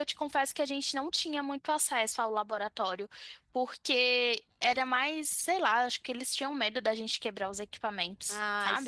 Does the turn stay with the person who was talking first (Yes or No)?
No